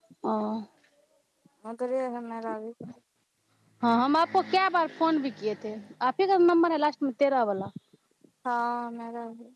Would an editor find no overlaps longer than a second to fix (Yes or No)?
Yes